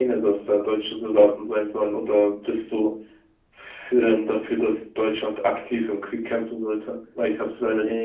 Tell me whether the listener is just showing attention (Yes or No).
No